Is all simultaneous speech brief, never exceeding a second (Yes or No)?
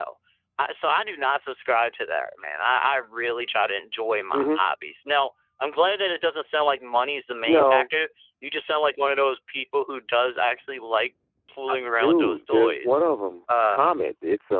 No